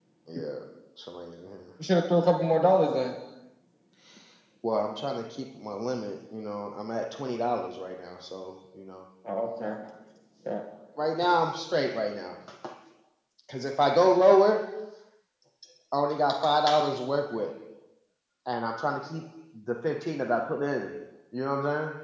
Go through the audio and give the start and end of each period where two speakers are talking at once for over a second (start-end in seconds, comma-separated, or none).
none